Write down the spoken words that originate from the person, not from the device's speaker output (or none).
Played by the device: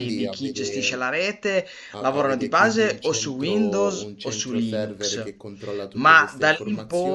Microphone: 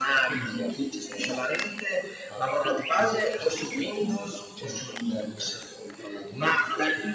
none